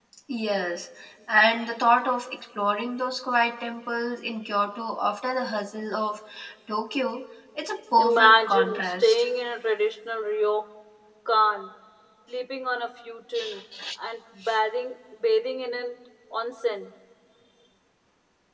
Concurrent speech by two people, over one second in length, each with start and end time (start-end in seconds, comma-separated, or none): 8.0-9.2